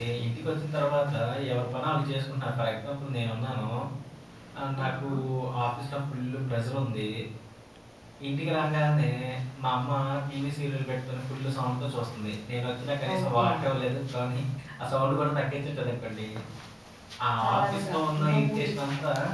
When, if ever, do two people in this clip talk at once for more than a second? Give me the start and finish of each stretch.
17.4-18.7

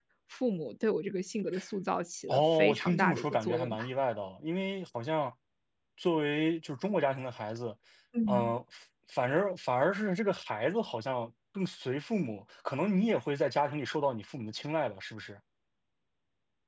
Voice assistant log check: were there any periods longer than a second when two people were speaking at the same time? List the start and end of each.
2.3-3.8

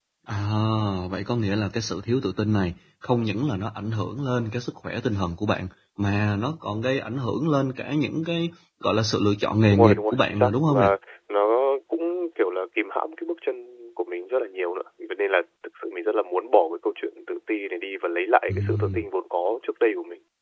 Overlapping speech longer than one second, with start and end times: 9.7-10.9

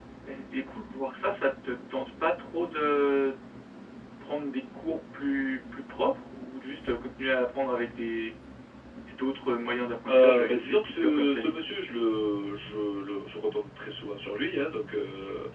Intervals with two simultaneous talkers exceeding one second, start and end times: 10.1-11.5

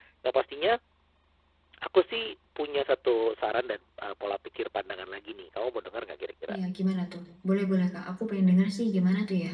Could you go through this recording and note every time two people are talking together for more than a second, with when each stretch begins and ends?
none

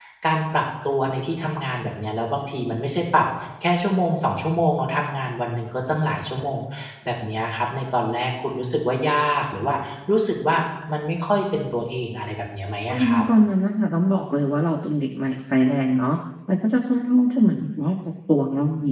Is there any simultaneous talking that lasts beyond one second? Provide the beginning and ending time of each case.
none

